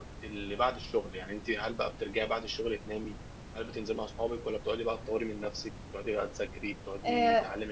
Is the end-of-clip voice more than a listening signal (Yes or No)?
No